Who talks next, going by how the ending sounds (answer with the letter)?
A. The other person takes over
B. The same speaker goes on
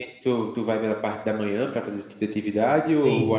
A